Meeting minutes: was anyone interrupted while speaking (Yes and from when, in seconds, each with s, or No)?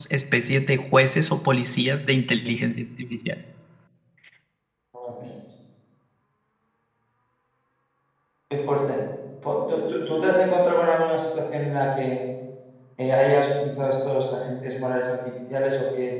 No